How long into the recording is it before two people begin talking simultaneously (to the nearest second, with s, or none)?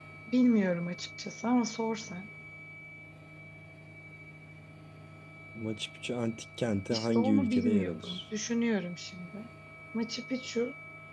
7 s